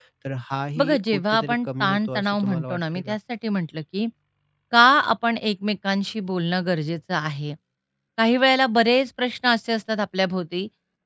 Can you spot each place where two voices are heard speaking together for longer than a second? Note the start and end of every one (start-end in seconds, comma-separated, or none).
0.8-3.2